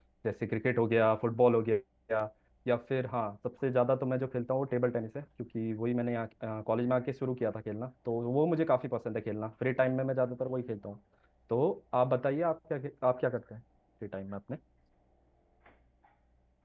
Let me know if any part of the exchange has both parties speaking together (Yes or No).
No